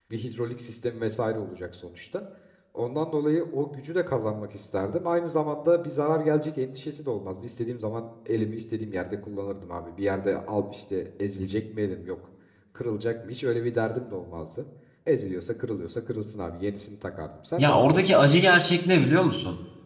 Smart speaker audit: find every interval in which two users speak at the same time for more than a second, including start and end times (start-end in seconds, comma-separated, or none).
none